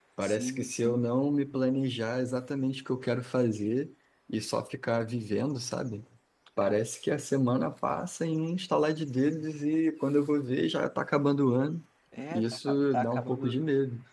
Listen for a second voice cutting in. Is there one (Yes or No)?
Yes